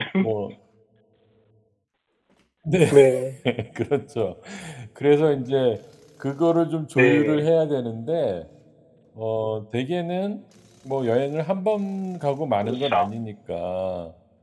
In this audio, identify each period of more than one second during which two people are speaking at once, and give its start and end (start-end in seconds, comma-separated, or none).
none